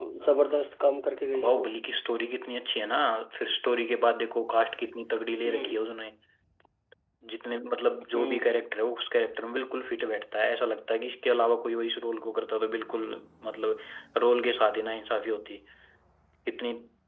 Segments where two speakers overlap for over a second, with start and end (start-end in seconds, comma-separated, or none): none